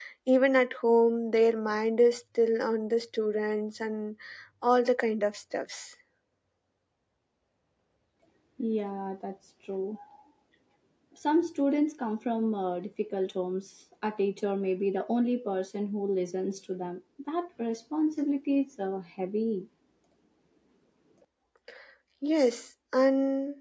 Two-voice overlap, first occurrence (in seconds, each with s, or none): none